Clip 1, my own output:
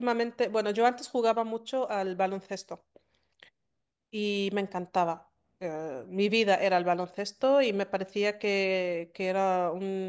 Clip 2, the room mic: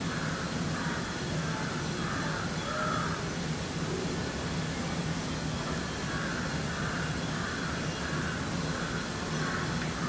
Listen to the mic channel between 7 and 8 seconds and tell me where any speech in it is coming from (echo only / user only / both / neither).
neither